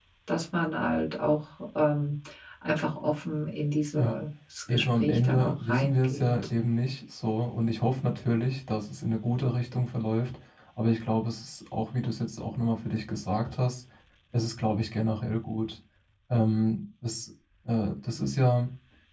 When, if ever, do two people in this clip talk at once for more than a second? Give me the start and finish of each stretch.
4.7-6.3

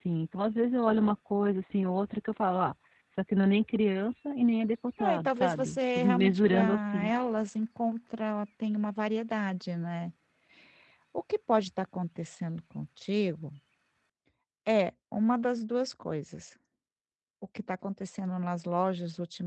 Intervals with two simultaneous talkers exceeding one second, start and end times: 5.0-7.1

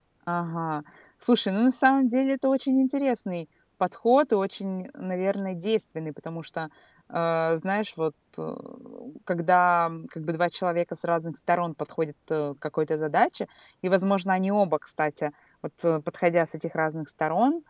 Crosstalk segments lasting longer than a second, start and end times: none

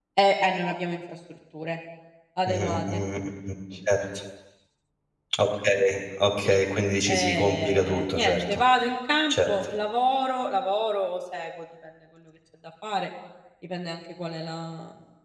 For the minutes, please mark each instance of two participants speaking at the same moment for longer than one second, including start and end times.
7.1-8.6

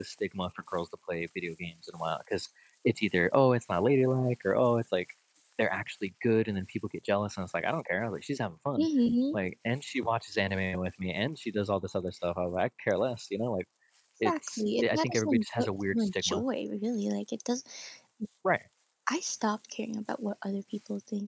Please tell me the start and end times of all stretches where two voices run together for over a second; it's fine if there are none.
14.2-16.4

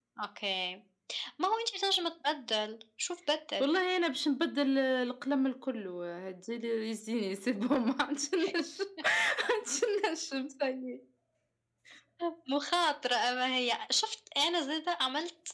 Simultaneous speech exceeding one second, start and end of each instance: none

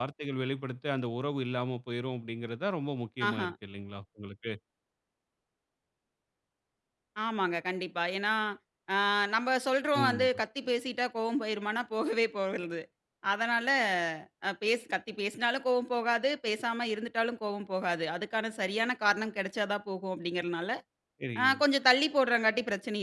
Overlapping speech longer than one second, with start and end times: none

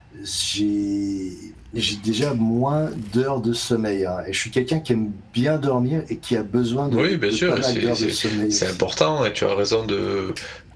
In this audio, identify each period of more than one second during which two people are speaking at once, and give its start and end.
6.9-8.9

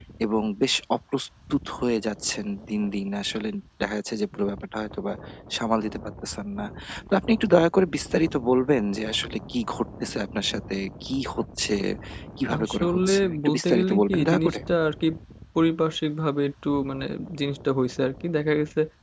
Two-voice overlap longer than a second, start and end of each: 12.5-14.6

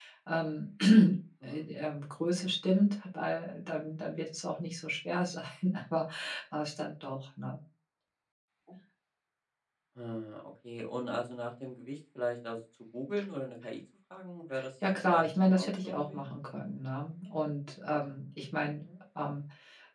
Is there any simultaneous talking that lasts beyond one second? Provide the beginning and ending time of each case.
15.1-16.3

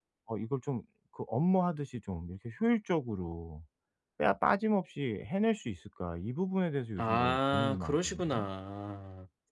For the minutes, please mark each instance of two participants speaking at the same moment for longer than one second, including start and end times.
7.0-8.4

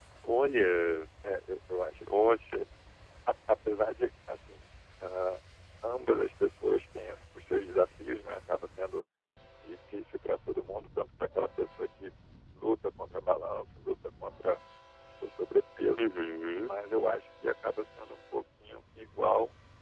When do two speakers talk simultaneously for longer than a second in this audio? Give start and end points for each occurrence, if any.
none

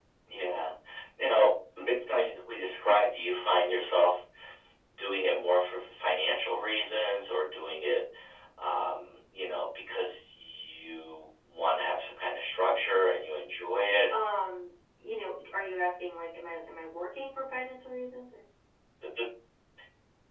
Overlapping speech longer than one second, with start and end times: none

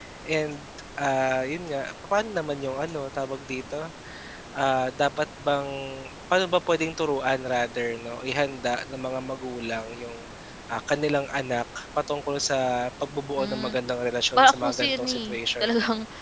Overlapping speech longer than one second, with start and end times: 14.4-15.7

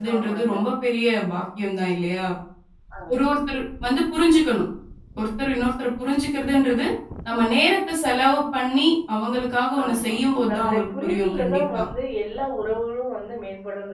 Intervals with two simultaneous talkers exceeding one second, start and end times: 10.5-11.8

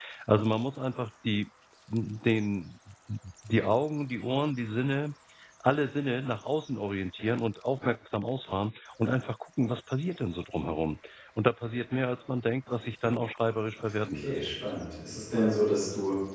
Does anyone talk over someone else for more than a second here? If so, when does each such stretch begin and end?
none

